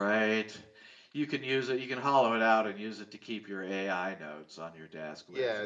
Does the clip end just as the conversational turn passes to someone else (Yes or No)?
Yes